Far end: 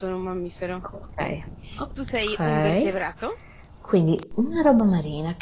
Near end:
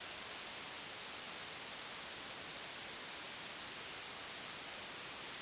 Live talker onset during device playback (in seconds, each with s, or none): none